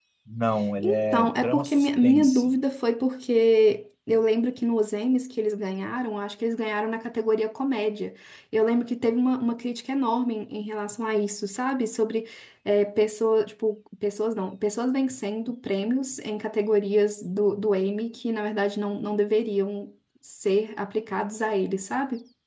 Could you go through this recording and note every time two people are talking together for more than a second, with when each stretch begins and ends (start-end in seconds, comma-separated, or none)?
0.8-2.5